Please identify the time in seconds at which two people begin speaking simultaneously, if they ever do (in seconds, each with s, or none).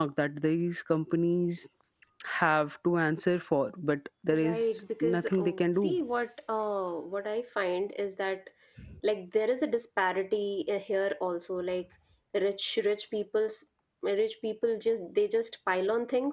4.3 s